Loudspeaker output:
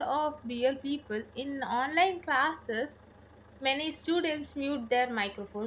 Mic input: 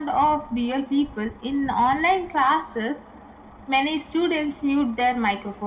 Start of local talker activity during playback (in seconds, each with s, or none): none